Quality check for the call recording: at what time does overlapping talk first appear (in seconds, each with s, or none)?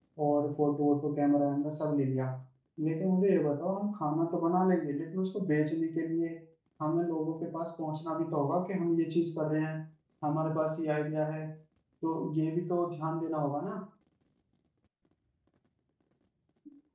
none